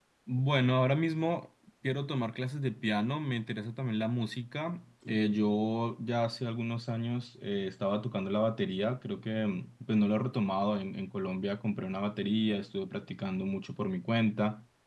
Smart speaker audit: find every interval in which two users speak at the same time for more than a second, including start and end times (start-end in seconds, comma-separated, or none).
none